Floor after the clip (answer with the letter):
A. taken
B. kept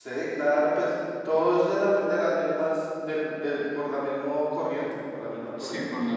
A